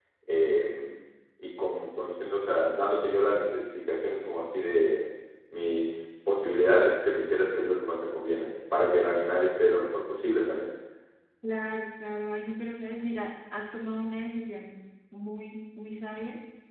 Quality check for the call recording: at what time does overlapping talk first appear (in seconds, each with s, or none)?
none